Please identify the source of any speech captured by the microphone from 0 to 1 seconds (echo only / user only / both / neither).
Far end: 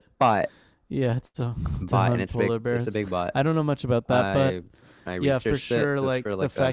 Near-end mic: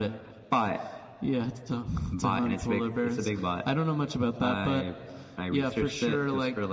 echo only